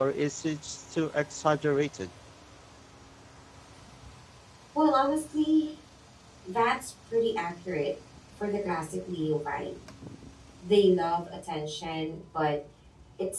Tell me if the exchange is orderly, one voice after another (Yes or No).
Yes